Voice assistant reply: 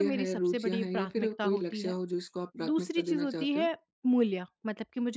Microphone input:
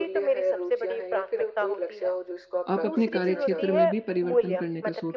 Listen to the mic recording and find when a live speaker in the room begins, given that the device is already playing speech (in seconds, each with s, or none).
2.7 s